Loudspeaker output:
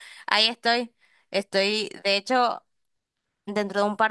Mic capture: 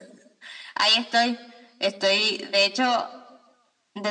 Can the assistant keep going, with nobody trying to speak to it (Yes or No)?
Yes